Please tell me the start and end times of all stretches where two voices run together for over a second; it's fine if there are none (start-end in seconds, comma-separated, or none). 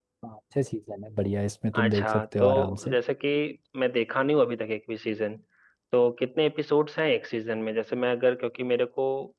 1.8-3.0